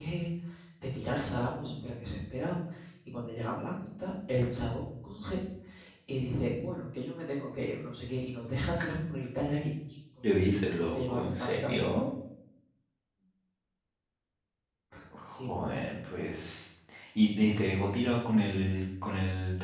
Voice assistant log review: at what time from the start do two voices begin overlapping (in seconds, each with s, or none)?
10.2 s